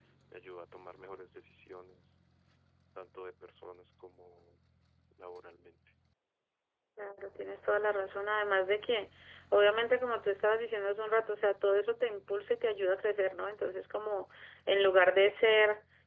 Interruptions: none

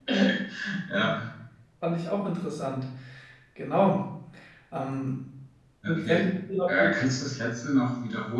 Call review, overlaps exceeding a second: none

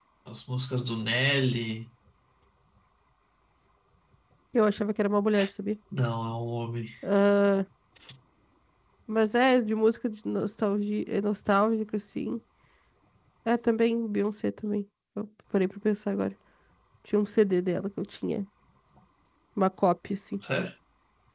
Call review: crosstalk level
none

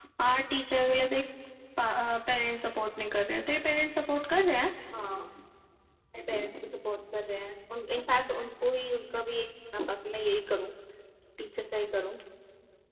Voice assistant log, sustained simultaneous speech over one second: none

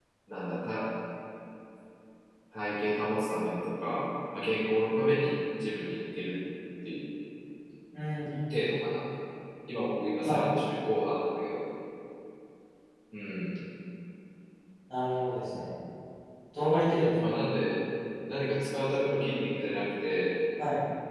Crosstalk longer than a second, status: none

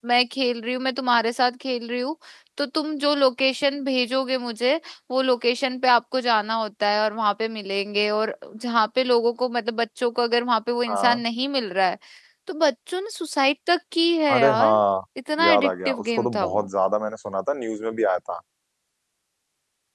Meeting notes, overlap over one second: present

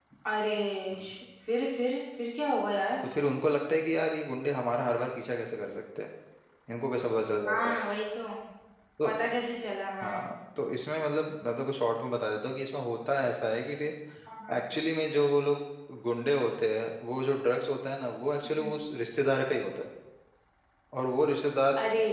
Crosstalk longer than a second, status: none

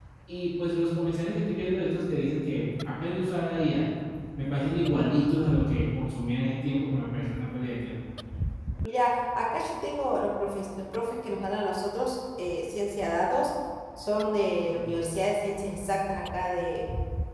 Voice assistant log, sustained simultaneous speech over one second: none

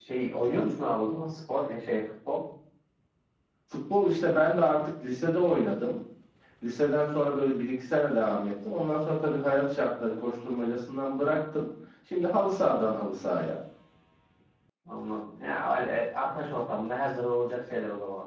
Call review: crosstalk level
none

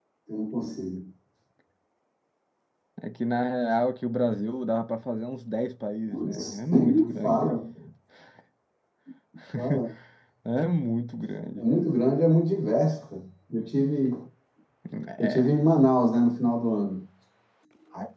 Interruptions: present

